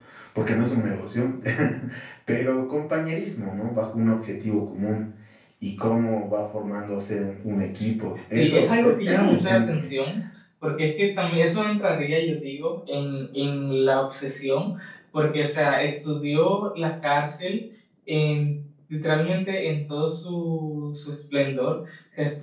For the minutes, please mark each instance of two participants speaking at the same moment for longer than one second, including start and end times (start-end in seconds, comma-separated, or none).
8.3-9.9